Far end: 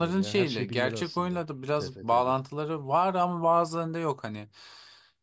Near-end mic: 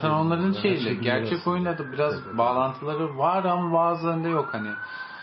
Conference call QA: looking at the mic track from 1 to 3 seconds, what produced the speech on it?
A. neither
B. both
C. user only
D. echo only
D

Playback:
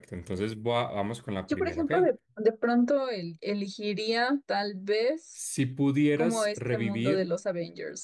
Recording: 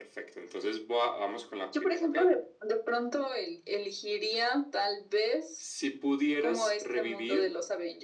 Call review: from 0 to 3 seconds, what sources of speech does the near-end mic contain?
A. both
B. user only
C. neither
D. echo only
D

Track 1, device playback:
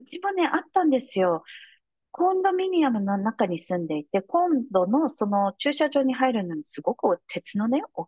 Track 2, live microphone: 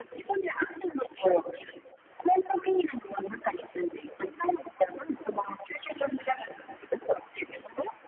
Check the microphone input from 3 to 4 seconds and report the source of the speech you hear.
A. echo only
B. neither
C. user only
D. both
A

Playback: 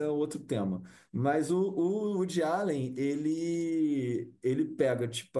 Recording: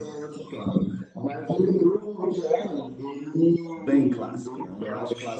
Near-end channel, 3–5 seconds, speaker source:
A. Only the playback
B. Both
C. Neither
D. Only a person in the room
B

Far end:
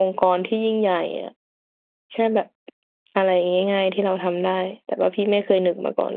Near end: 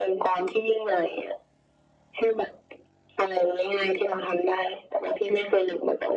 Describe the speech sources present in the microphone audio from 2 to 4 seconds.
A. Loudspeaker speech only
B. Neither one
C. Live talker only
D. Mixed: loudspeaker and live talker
A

